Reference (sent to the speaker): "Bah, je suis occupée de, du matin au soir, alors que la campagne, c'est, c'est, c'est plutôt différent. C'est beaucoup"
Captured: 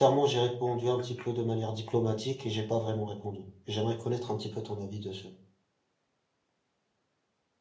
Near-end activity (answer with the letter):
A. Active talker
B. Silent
A